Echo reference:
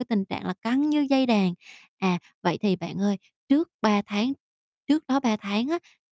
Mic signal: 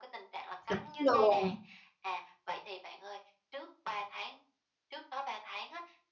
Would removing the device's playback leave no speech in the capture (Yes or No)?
No